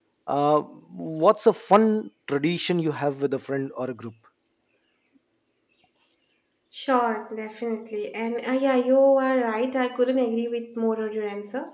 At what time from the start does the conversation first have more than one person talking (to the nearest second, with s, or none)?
none